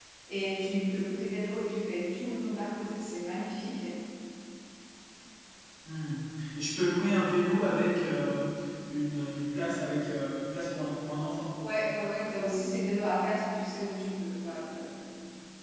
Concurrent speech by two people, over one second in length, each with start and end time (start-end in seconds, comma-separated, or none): none